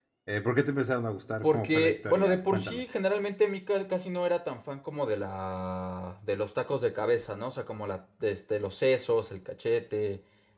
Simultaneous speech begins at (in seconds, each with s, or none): 1.4 s